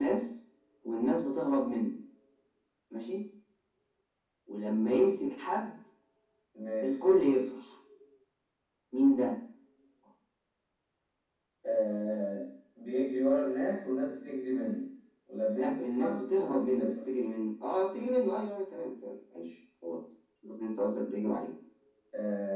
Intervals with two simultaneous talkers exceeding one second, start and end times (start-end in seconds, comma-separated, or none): 15.5-16.9